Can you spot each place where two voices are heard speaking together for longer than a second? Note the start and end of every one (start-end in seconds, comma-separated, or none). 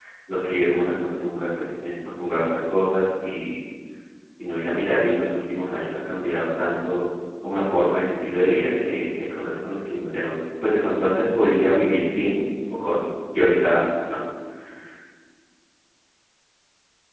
none